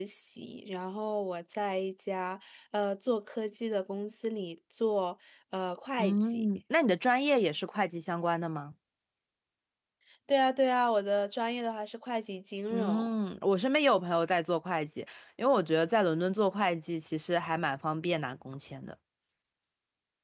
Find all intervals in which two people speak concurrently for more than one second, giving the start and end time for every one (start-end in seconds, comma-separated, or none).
none